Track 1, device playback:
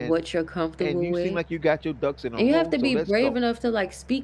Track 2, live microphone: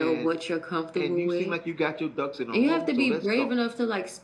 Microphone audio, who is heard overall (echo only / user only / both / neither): echo only